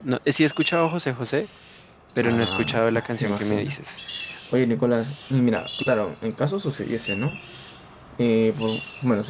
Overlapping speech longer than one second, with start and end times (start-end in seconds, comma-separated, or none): 2.2-3.8